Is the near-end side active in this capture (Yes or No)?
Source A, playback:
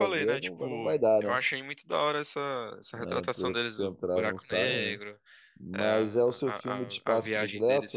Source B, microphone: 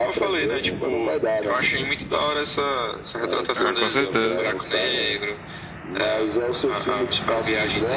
Yes